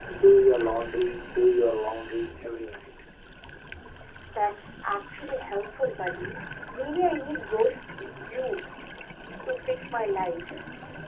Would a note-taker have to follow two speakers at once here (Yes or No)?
No